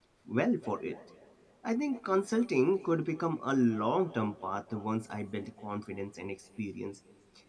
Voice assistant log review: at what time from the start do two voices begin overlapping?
none

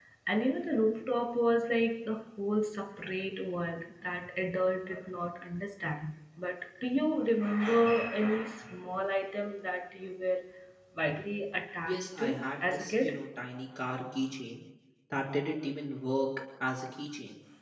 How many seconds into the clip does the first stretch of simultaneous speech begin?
11.9 s

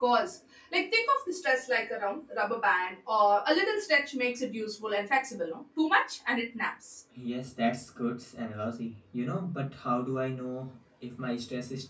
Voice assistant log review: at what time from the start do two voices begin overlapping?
none

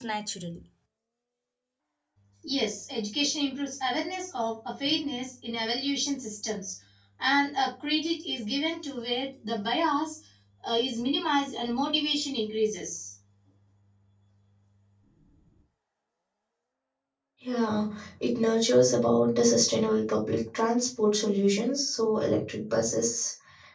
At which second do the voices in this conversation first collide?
none

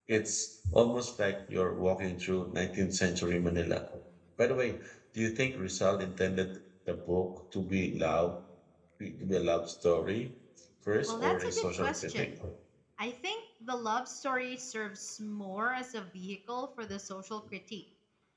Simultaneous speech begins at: 11.1 s

